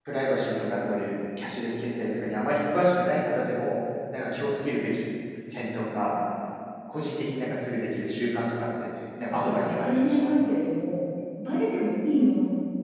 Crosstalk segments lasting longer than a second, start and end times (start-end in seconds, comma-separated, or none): 9.3-10.6